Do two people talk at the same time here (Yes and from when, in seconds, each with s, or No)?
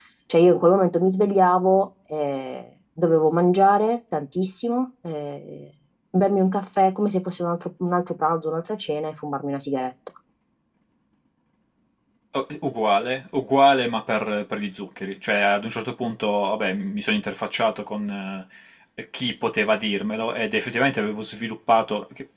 No